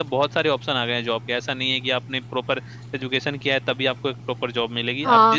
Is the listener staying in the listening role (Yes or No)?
No